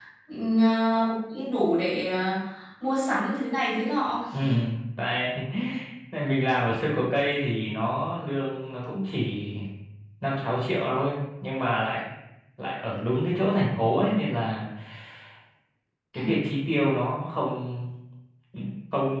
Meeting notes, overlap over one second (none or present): none